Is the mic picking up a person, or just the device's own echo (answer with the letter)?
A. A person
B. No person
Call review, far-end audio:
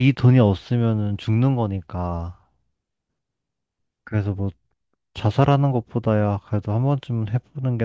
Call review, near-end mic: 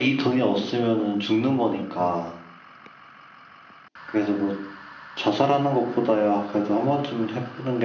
A